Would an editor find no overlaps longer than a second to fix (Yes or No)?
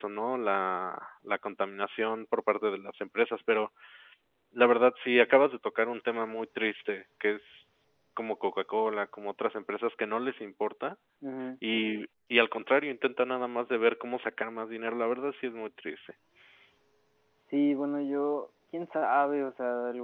Yes